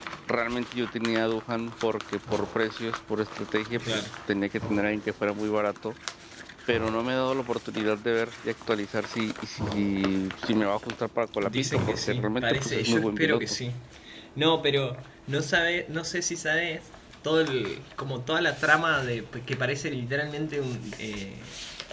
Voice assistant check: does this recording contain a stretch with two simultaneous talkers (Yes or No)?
Yes